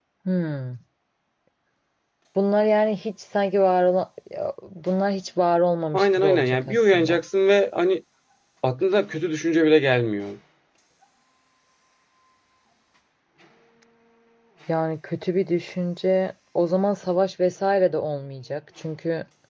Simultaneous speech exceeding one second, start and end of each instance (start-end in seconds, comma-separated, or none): 5.9-7.2